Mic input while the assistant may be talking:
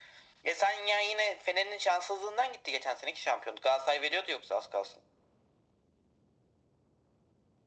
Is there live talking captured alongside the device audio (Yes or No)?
No